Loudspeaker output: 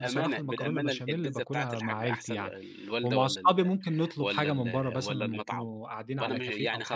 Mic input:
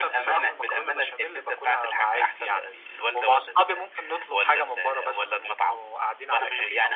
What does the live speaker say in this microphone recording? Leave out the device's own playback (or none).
none